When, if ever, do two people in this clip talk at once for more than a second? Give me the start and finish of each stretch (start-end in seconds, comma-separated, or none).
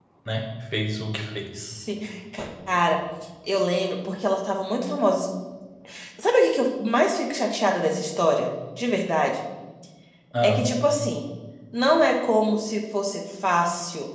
none